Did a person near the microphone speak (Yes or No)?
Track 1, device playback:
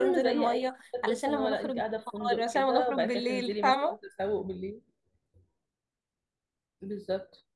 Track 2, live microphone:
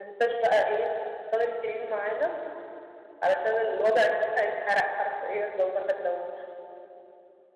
Yes